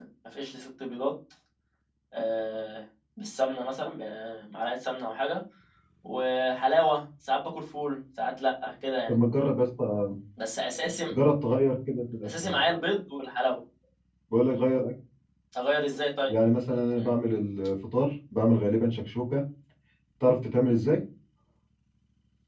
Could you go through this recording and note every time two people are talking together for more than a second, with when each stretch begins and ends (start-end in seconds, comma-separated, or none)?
none